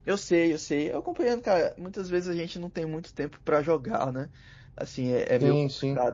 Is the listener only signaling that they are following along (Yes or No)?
Yes